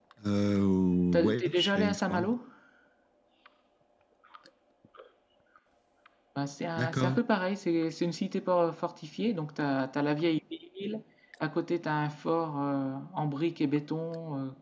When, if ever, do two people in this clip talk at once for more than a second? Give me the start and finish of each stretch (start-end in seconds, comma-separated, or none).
1.1-2.3